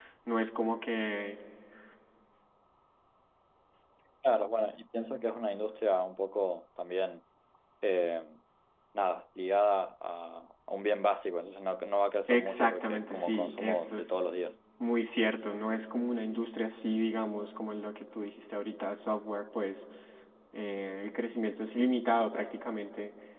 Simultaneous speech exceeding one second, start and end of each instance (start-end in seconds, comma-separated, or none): 12.3-14.2